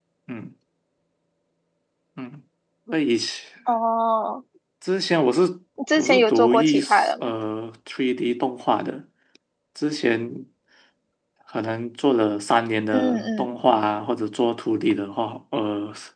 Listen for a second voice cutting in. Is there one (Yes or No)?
Yes